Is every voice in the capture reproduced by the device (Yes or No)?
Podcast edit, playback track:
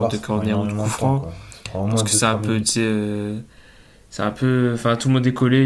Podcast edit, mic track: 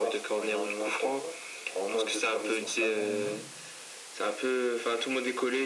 No